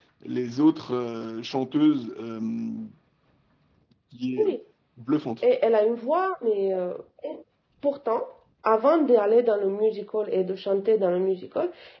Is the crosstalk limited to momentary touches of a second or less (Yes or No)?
Yes